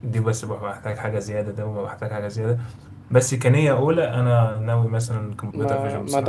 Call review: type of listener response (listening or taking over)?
taking over